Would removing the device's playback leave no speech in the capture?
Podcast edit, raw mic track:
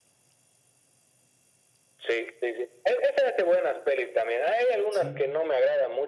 No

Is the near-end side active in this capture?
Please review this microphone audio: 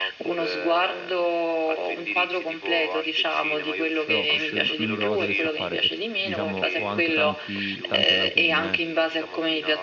Yes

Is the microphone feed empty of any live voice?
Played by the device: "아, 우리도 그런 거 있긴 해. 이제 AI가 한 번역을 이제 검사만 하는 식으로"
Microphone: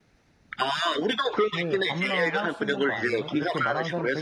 No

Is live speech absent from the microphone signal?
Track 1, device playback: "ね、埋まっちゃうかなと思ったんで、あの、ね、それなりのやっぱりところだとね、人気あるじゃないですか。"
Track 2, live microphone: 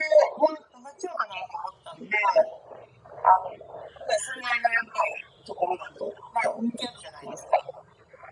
Yes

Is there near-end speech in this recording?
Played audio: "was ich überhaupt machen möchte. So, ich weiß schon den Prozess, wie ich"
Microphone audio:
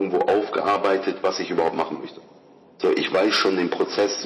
No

